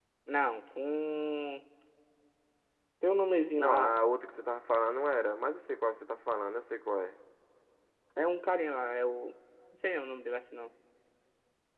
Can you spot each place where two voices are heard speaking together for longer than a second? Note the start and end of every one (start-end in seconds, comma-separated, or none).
none